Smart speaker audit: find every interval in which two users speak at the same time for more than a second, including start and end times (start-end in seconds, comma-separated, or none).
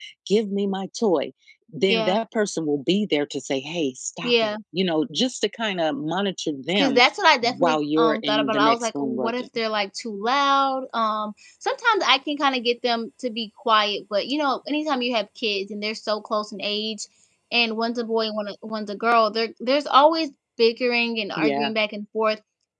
7.6-9.4